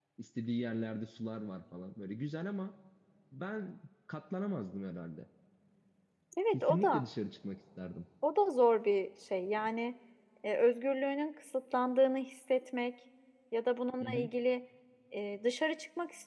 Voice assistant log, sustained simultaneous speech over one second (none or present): none